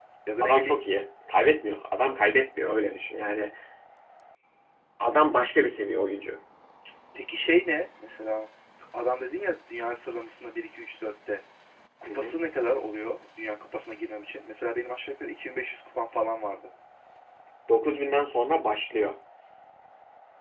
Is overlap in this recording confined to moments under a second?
Yes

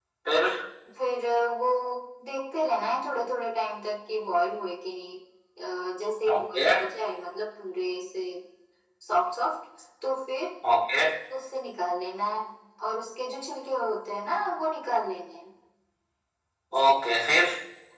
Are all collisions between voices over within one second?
Yes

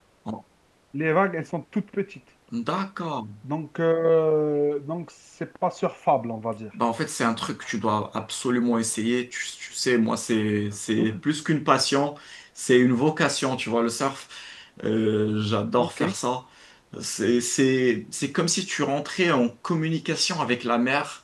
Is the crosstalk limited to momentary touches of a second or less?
Yes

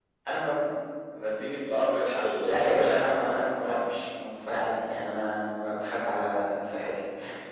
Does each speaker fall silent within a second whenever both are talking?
No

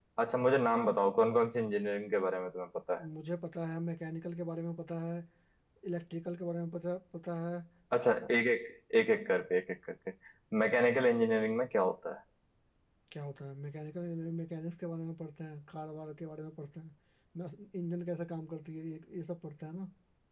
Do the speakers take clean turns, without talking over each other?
Yes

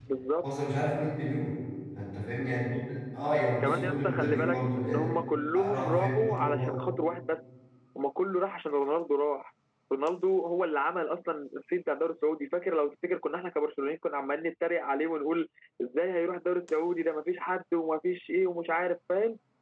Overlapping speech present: Yes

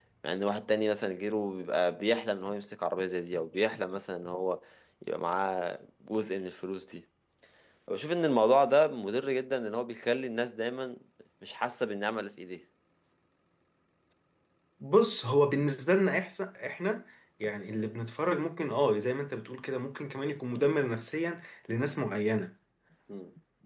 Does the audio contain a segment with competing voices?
No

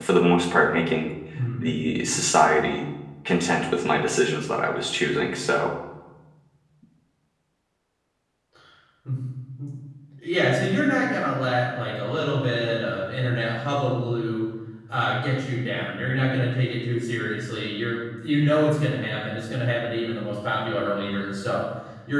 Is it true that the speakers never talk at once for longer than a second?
Yes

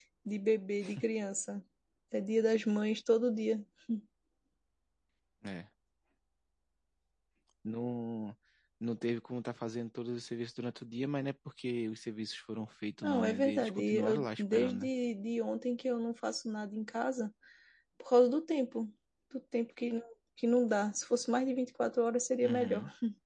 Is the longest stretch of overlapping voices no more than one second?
No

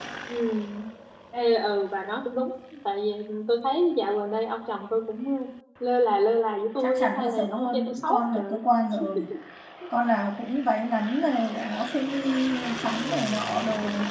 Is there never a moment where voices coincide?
No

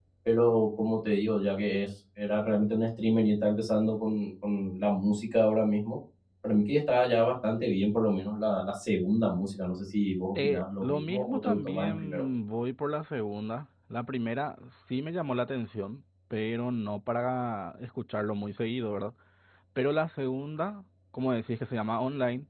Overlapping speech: Yes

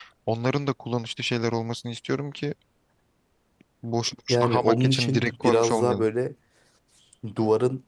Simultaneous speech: Yes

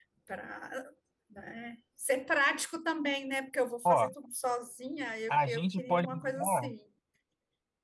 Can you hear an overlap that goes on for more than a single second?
Yes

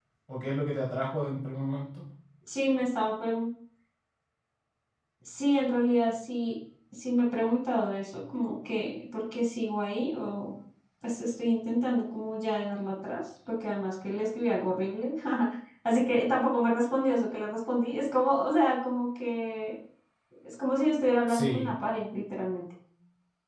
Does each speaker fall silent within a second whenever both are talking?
Yes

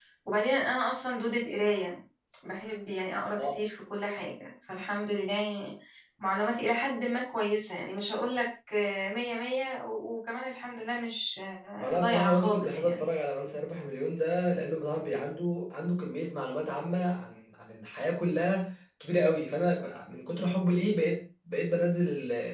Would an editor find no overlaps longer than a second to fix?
No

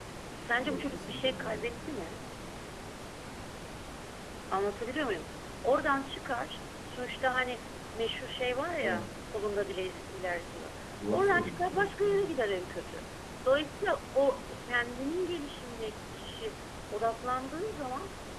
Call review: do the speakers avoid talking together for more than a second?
No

